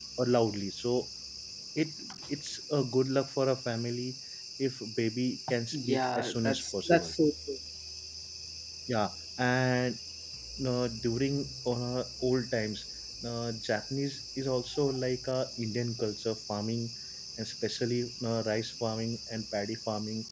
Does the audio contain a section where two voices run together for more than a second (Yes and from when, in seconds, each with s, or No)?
Yes, from 5.7 s